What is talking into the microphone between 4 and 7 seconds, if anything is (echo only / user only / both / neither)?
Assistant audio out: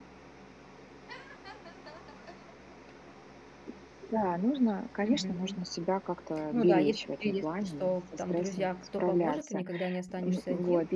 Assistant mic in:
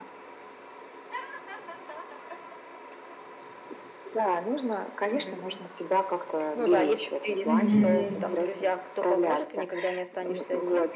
echo only